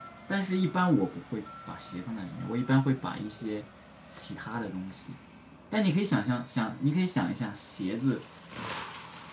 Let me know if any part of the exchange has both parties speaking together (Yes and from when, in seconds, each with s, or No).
No